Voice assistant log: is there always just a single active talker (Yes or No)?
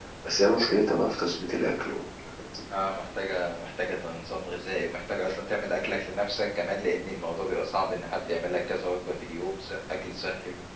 Yes